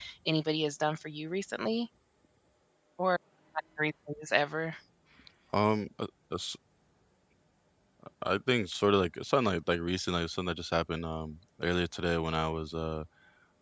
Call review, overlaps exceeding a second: none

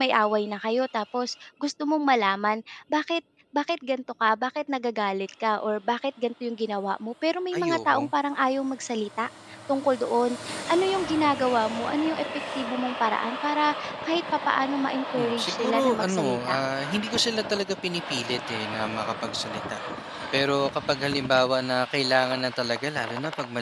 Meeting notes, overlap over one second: present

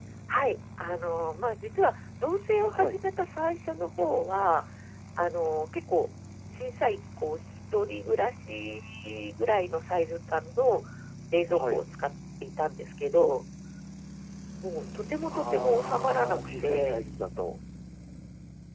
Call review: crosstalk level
present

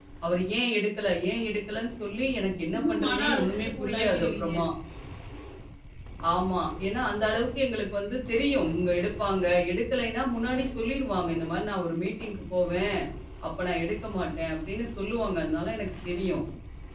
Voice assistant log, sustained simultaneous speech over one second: present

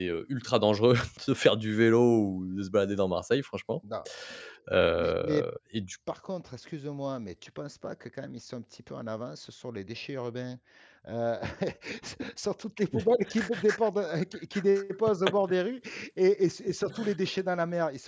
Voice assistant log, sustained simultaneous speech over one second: none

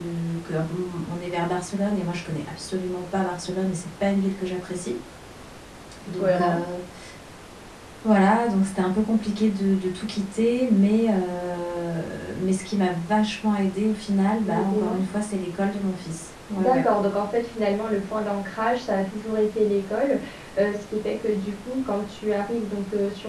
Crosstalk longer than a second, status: none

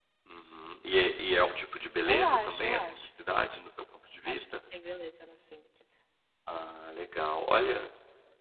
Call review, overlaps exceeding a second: present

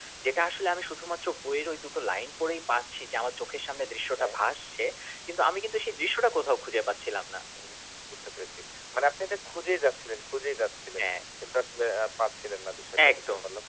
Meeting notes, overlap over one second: none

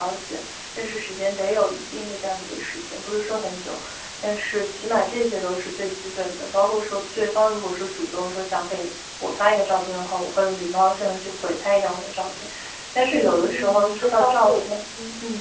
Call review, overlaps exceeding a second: present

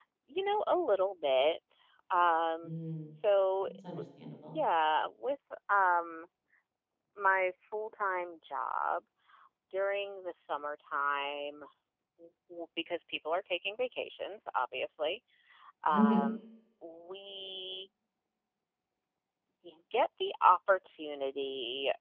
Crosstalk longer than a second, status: none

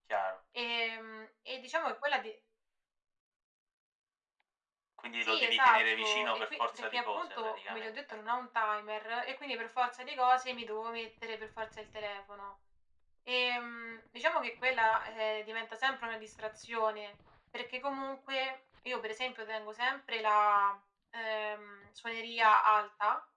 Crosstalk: present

